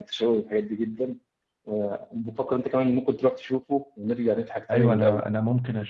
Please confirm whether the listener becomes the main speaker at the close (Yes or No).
Yes